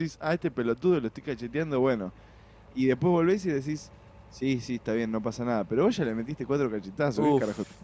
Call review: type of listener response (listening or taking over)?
taking over